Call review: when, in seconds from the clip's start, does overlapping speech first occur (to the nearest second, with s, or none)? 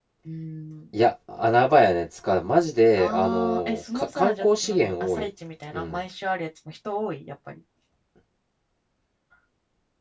3 s